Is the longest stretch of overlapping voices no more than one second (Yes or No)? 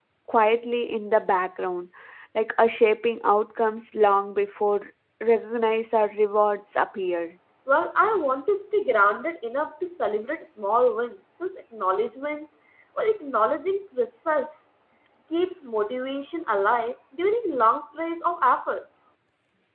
Yes